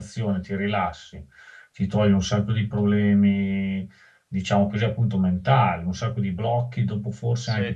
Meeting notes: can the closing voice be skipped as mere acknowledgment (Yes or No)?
No